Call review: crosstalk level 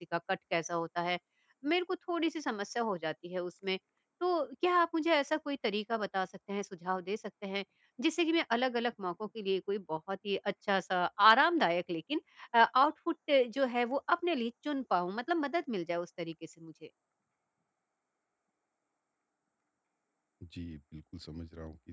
none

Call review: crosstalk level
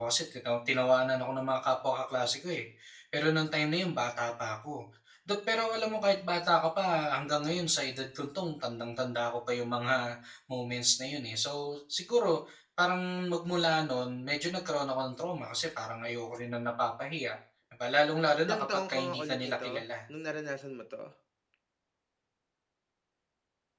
present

